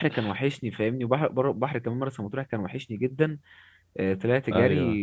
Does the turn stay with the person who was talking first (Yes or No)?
Yes